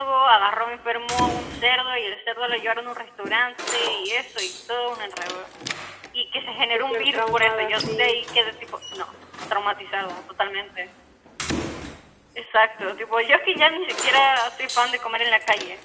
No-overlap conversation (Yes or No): No